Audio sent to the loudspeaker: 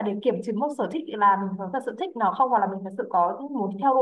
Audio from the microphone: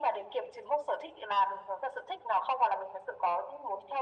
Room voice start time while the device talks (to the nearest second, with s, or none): none